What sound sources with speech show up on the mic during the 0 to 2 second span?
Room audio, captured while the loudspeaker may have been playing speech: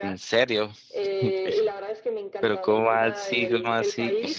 both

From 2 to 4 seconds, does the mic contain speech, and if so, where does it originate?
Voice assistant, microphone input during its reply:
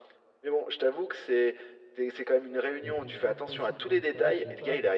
both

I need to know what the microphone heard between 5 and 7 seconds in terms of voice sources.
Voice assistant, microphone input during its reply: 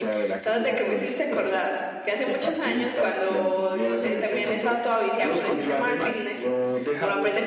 both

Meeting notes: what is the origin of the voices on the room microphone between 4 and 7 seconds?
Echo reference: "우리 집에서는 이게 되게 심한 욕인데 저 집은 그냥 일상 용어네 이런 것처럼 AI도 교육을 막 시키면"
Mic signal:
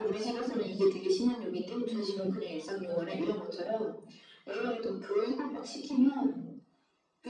echo only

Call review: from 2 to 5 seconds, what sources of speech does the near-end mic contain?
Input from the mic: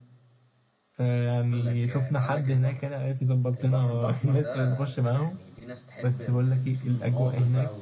both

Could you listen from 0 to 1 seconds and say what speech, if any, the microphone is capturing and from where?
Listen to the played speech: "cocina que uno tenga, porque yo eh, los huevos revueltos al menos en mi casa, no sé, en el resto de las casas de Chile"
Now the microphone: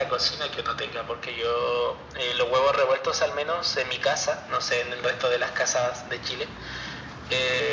echo only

